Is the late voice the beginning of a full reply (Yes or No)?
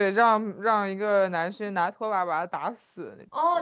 Yes